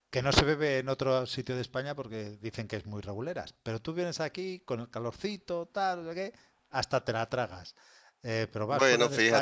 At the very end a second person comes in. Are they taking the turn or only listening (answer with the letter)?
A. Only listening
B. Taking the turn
A